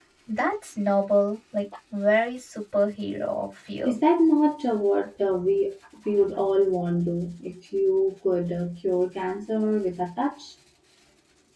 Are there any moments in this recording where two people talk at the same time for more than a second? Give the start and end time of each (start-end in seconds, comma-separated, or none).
none